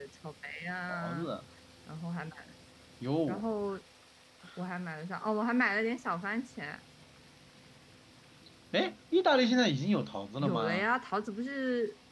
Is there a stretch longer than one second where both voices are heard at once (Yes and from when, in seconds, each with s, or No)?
No